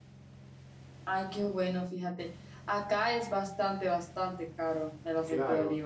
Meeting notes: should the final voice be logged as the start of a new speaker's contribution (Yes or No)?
Yes